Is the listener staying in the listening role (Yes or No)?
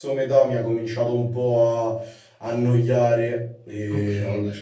No